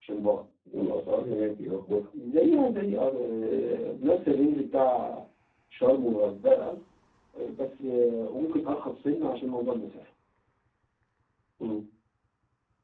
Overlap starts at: none

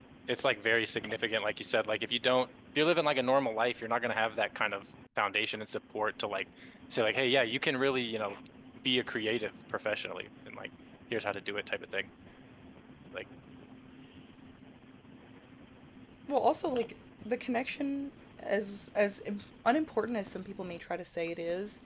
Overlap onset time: none

